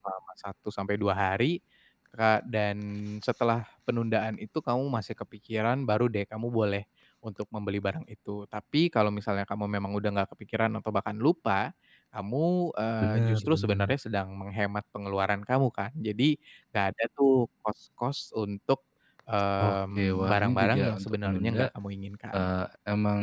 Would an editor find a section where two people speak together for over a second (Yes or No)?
Yes